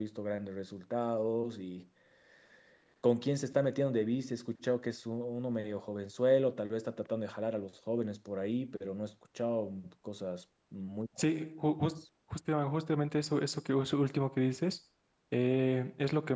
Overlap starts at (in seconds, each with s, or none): none